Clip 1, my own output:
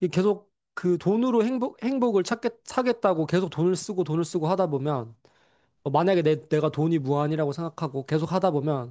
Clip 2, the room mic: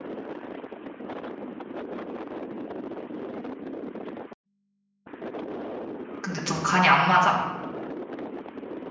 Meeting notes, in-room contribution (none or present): present